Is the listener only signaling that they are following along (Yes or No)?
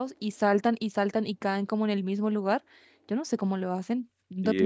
No